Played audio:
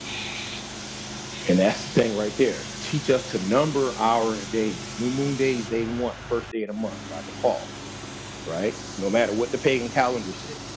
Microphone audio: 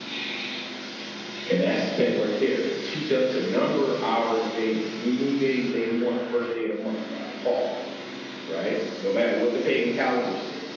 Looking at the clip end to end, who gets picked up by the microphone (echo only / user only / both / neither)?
echo only